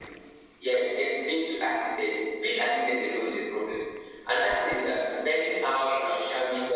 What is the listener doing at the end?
listening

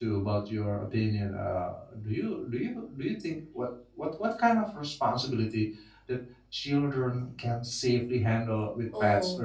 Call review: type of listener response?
taking over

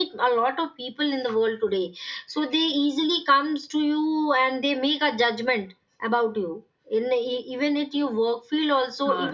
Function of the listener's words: taking over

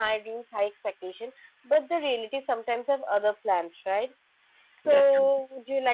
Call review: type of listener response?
listening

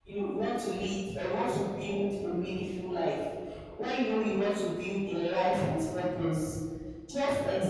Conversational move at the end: listening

